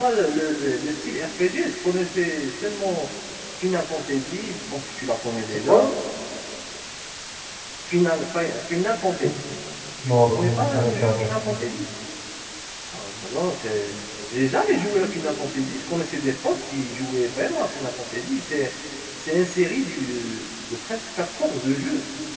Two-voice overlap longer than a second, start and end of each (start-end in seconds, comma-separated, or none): 10.1-11.3